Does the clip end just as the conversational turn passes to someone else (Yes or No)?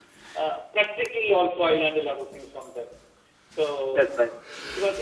No